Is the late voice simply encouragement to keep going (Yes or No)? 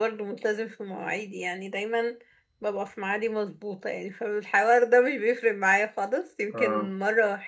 Yes